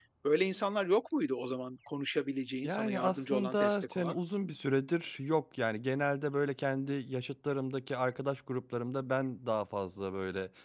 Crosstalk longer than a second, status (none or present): present